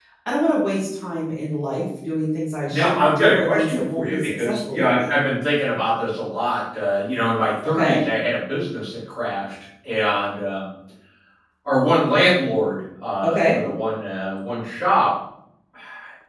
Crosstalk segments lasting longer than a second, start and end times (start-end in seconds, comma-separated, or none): 2.7-5.1